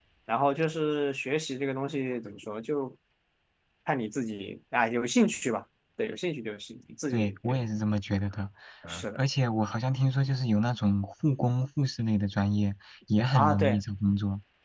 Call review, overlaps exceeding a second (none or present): none